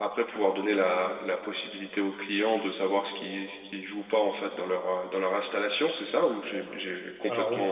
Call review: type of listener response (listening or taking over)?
taking over